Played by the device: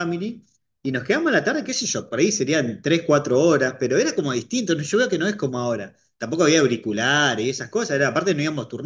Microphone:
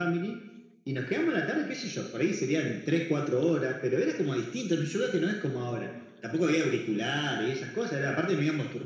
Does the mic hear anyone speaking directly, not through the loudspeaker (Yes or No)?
No